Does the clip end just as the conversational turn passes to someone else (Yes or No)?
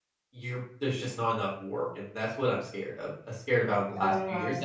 No